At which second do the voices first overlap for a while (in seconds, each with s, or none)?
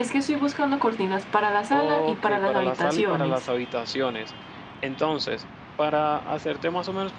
1.7 s